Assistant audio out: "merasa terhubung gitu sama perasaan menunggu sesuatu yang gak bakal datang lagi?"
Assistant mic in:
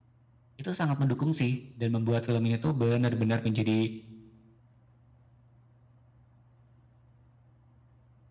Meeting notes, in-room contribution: present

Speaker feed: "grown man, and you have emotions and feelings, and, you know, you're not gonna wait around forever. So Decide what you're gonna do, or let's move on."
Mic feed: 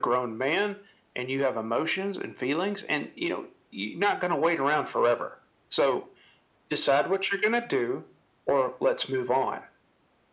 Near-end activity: none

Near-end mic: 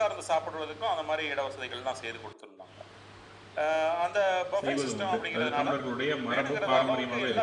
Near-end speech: present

